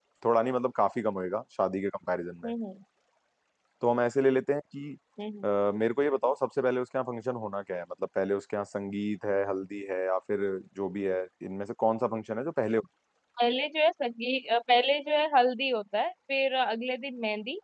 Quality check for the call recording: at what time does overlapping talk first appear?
none

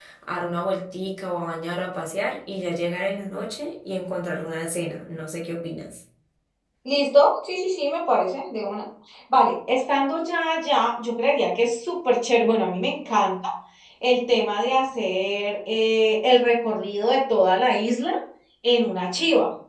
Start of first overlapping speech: none

